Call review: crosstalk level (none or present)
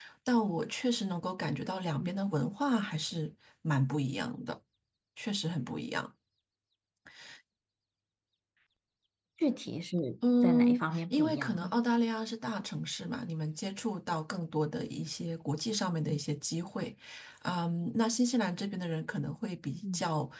present